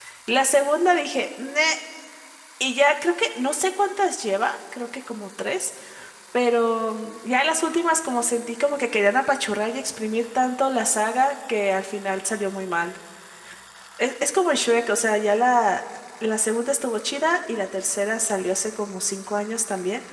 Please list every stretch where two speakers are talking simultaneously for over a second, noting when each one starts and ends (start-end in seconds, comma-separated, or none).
none